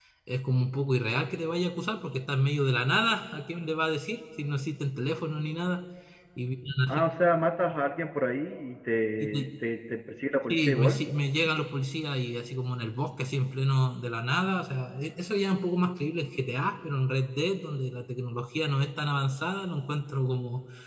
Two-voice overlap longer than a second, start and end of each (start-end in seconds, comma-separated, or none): none